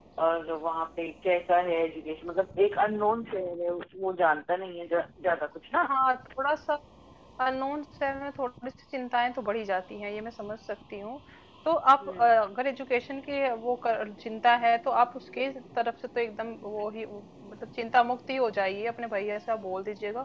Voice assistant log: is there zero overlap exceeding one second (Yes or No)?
Yes